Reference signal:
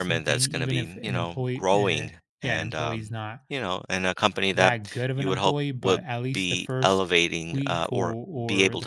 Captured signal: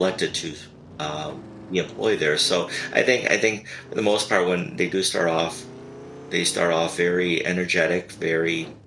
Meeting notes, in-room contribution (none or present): present